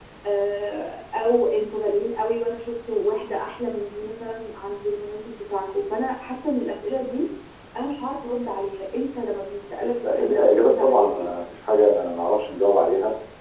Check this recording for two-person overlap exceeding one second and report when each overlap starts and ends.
10.0-11.3

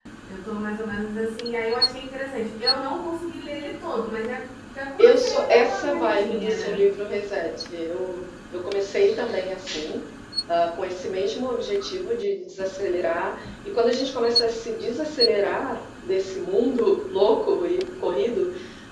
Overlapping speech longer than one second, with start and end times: 5.0-6.8

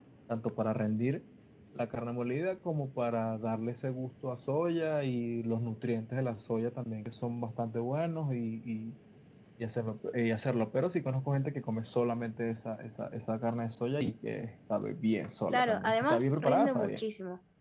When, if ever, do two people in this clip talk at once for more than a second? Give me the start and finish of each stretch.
15.5-17.0

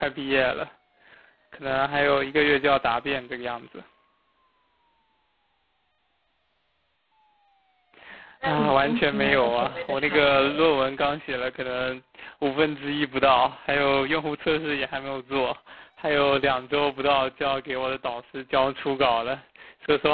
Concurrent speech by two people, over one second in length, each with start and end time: 8.4-10.7

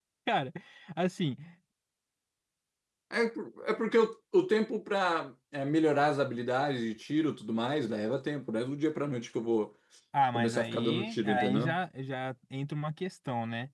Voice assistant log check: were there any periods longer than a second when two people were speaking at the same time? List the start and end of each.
10.3-11.8

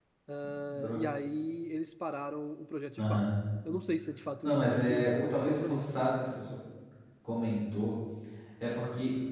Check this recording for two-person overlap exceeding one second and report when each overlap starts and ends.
4.4-6.0

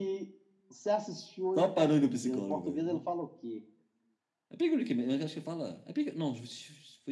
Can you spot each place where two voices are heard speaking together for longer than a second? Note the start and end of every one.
1.6-3.0

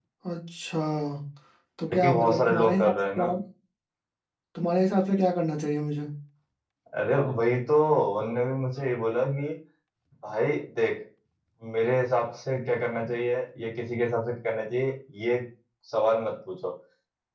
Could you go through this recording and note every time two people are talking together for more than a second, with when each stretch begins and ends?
1.9-3.2

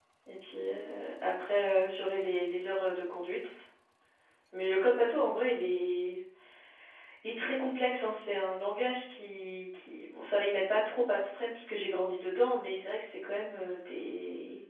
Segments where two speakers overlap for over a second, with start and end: none

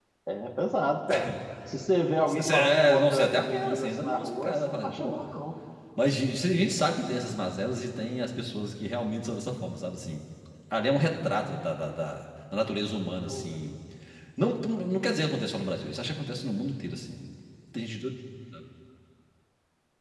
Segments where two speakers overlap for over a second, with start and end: 2.3-5.3

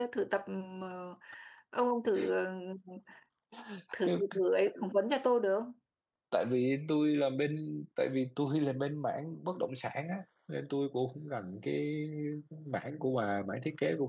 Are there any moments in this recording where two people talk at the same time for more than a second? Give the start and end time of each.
none

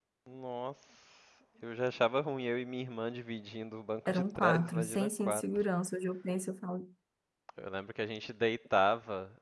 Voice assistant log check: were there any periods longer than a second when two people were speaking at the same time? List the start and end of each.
4.1-5.7

